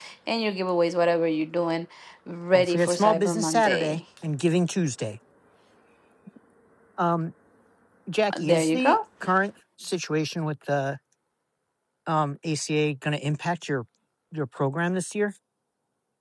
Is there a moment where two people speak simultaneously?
Yes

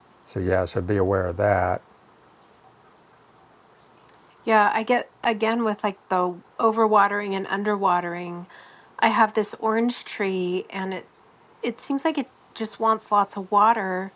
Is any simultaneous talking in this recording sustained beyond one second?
No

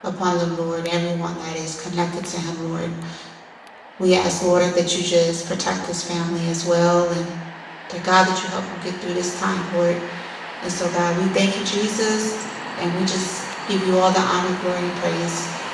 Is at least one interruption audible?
No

